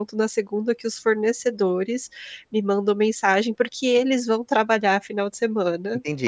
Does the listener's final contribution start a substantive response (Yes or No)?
Yes